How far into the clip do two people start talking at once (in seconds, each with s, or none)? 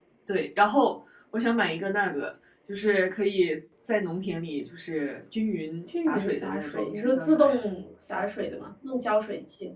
5.9 s